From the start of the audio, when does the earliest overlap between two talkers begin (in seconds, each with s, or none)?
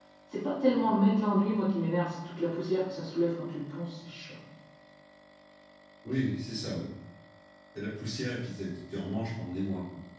none